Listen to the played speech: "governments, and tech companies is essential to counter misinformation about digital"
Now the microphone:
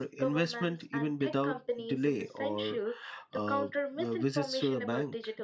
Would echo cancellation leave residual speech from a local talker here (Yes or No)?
Yes